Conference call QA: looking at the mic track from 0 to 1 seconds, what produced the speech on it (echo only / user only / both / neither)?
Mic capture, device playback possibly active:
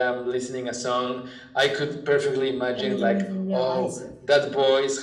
echo only